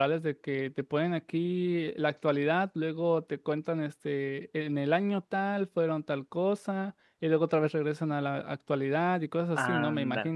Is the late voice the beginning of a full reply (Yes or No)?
Yes